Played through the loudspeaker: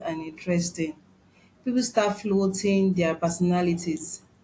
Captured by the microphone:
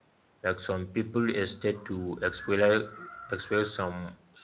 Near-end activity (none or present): present